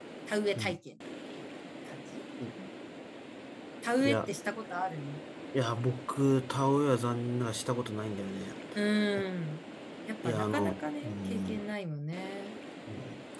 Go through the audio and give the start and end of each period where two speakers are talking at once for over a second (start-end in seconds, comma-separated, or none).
10.2-11.6